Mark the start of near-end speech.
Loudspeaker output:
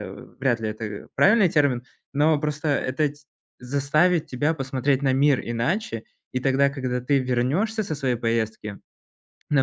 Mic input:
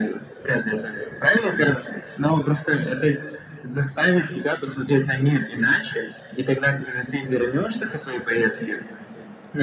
none

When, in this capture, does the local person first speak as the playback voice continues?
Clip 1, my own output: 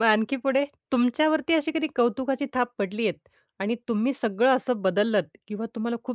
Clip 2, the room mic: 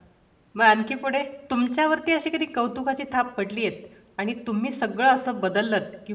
none

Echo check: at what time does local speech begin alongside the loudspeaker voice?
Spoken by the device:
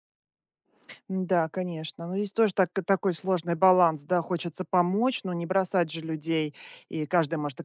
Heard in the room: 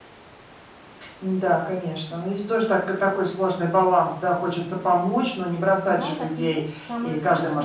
5.9 s

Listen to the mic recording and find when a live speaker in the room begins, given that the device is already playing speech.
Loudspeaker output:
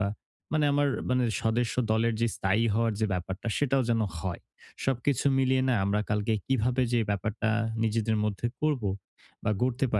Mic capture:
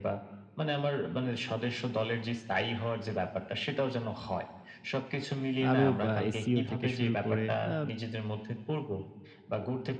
5.7 s

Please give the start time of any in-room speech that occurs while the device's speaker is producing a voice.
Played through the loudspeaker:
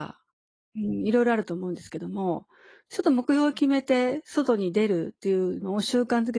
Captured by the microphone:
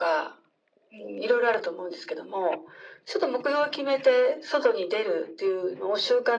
none

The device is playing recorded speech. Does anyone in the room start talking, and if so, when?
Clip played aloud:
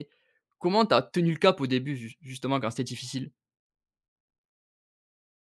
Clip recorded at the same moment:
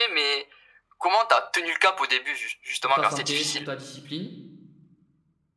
2.8 s

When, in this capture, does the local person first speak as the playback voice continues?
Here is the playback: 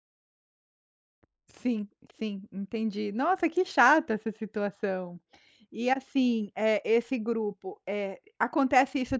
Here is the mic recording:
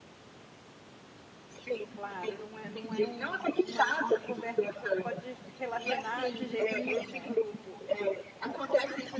1.9 s

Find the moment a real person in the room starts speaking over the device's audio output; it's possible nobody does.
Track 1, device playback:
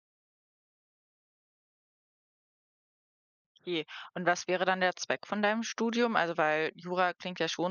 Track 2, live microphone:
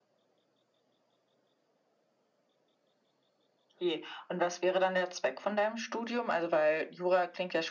none

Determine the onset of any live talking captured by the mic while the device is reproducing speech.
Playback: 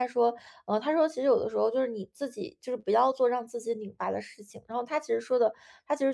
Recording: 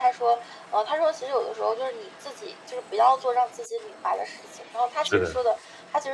5.0 s

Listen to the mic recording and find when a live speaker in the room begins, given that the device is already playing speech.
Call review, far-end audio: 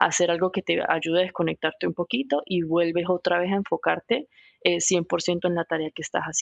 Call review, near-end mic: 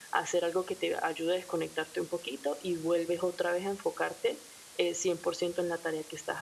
none

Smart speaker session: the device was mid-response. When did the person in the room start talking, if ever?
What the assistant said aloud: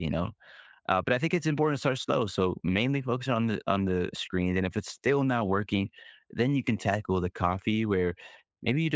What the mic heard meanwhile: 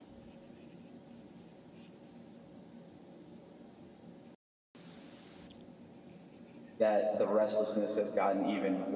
6.8 s

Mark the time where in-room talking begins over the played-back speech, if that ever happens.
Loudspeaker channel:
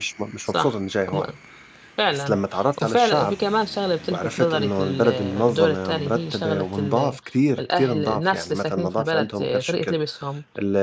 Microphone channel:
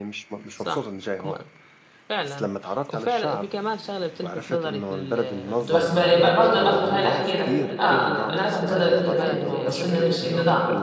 5.7 s

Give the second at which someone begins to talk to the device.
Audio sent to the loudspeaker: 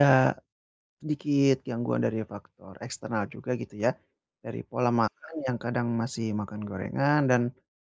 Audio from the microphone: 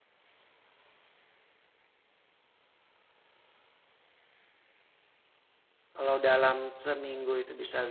6.0 s

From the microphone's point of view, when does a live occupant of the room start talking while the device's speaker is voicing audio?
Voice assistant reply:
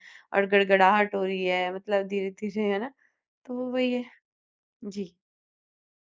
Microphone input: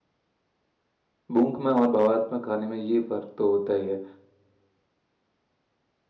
1.3 s

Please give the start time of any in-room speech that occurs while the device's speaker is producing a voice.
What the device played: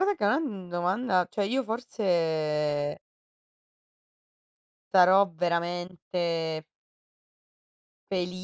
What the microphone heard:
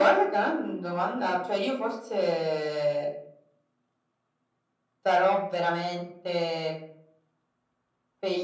none

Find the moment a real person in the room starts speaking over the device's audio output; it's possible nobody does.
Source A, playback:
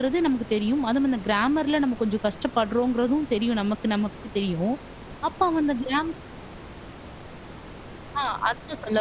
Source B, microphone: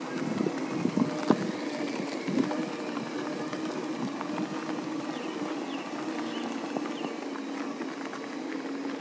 none

